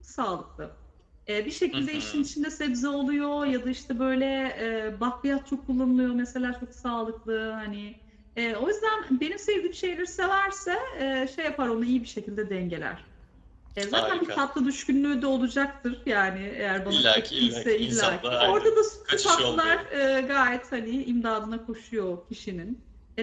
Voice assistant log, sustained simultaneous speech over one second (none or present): present